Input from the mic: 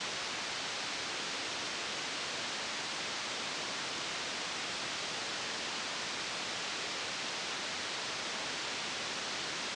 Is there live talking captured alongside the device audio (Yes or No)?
No